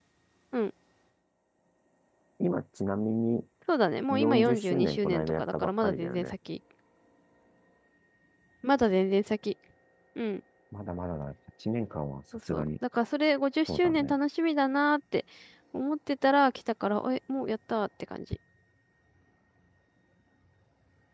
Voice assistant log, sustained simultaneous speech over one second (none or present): present